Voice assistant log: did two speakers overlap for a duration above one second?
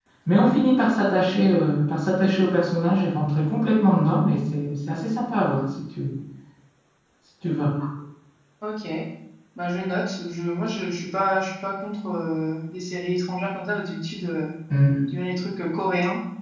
No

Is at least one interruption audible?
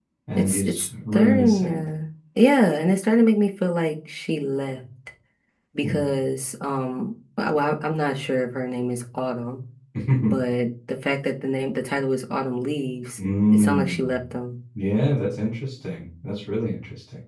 Yes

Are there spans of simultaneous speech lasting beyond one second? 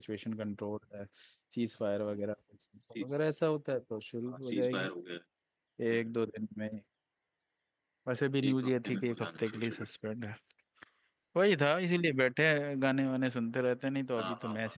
Yes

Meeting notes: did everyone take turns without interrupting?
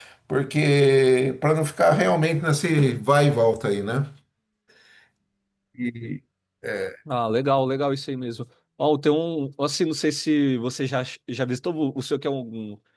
Yes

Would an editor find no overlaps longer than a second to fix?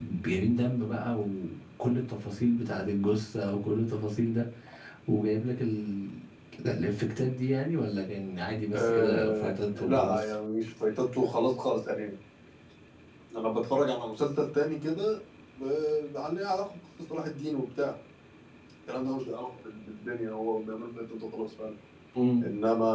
No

